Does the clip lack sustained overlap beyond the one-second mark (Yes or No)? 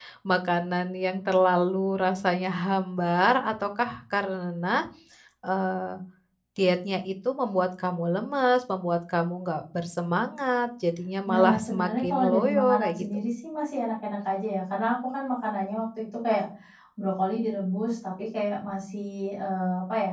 No